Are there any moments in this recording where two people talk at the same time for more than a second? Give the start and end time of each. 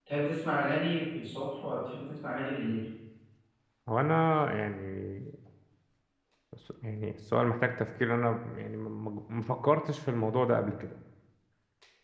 none

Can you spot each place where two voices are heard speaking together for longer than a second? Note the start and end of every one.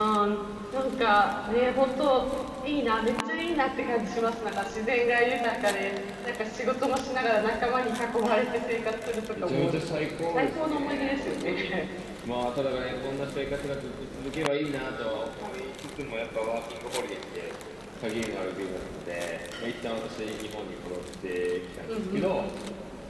10.3-11.7

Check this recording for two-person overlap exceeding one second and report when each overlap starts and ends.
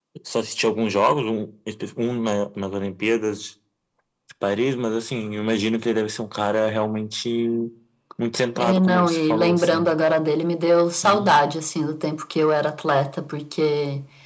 8.6-9.9

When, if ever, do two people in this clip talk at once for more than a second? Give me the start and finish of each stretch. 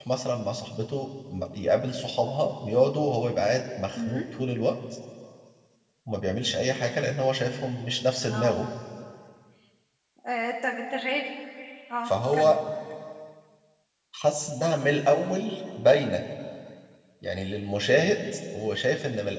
none

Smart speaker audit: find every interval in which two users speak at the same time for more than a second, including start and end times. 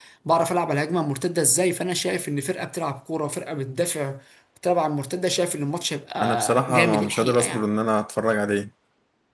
6.2-7.7

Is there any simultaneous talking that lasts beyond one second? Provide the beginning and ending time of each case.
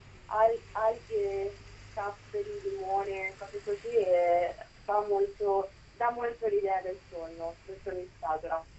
none

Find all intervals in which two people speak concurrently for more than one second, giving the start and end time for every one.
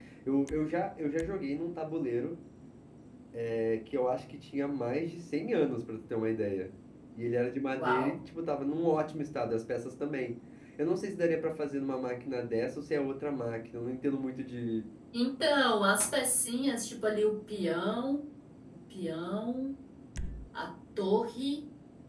none

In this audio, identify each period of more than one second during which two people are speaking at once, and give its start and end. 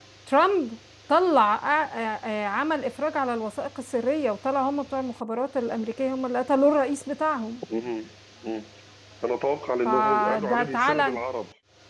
9.8-11.2

